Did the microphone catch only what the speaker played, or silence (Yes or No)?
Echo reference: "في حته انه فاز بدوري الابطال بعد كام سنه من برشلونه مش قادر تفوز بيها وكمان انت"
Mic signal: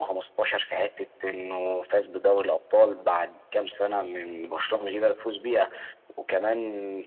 Yes